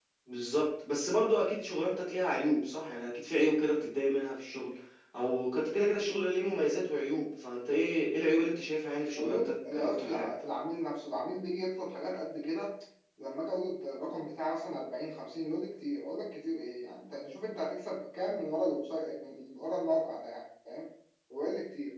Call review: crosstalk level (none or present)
present